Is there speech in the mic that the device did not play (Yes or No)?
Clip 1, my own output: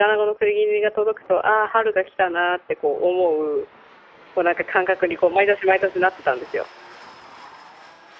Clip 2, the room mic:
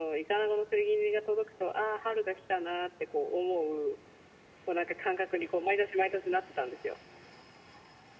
No